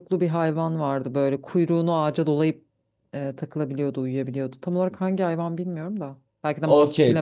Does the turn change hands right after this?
Yes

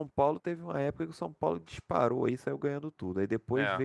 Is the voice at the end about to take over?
No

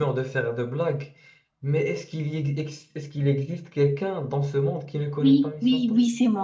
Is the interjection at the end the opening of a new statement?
Yes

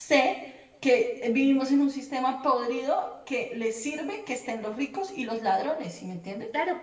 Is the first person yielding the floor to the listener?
Yes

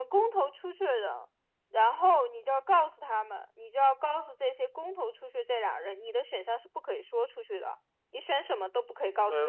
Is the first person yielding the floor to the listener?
No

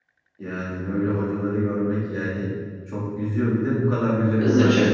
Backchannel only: Yes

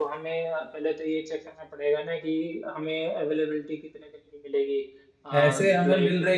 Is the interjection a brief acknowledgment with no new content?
No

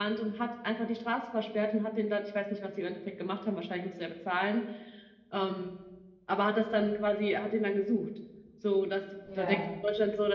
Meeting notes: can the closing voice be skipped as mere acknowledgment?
Yes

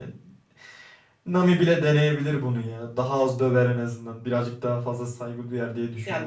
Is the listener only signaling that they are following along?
No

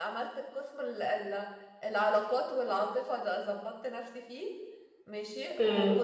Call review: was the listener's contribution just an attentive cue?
Yes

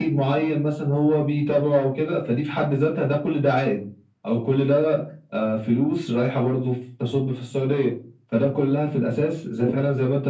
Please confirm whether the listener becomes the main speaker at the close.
No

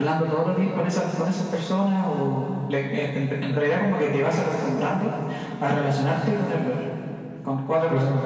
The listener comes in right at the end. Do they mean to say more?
Yes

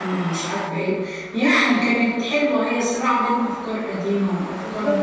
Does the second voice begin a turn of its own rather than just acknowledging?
Yes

